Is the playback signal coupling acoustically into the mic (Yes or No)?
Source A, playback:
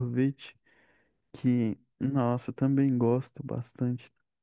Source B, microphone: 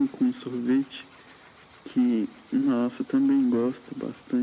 Yes